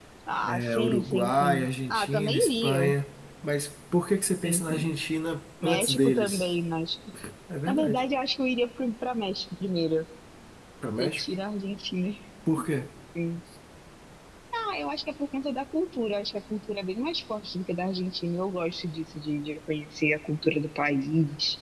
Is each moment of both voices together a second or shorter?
No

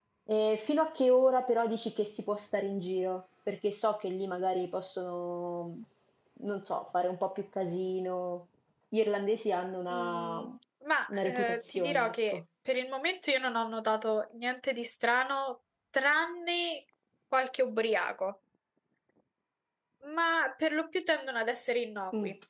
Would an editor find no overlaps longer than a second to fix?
No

